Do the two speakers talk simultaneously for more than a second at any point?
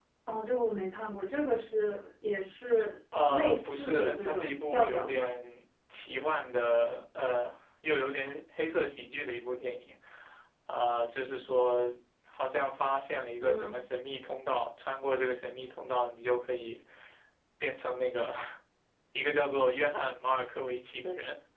Yes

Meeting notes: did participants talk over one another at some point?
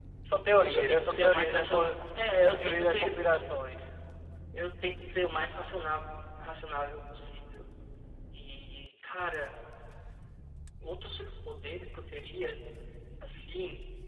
Yes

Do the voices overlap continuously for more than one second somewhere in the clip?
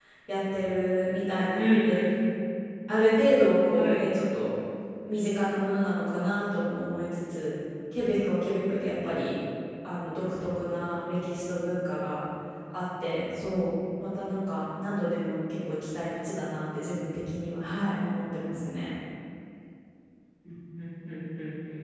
No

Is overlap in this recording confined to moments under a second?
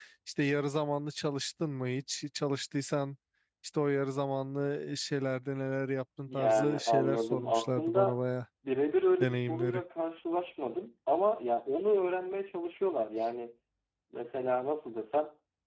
No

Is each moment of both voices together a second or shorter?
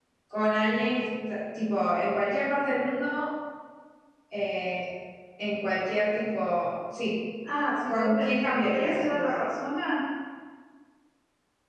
No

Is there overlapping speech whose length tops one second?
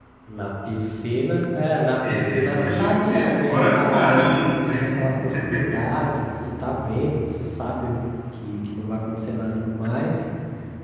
Yes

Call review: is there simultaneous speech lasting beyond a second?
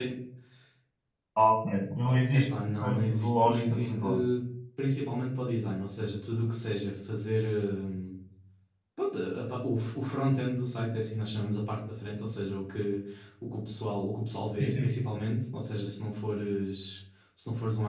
Yes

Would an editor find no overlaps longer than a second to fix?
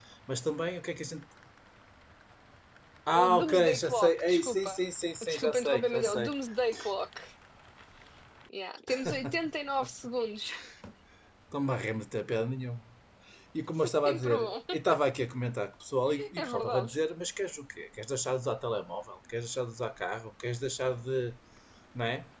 No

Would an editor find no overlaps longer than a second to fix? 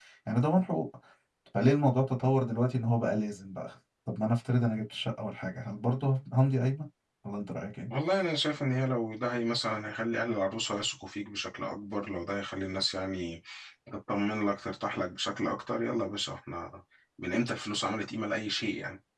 Yes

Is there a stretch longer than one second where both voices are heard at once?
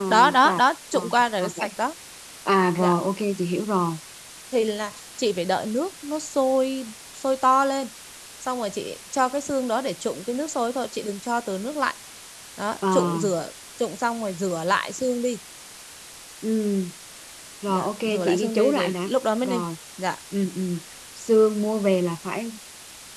Yes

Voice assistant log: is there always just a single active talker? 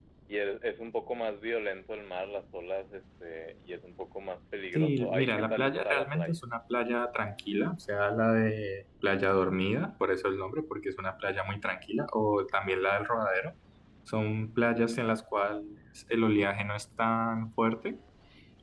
No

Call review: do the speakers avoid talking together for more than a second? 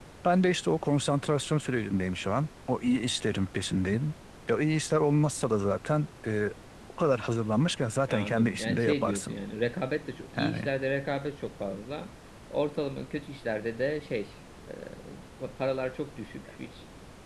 No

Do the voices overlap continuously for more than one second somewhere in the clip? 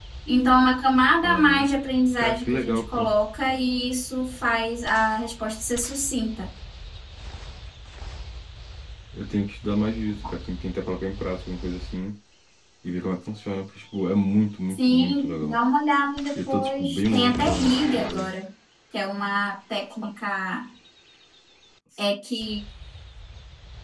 Yes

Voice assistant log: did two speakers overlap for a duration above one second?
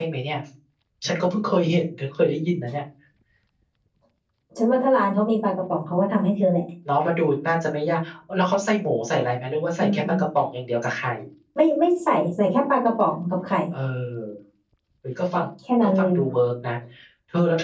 No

